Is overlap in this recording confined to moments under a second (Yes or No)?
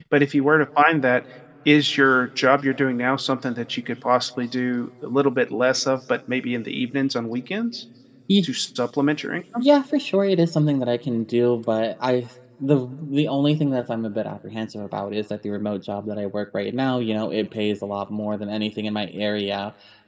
Yes